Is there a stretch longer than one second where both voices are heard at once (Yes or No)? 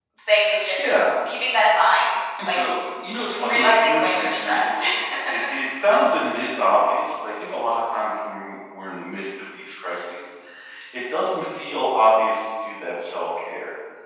Yes